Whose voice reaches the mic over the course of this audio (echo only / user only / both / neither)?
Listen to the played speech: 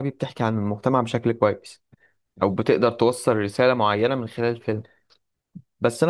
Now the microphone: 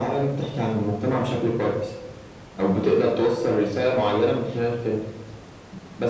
echo only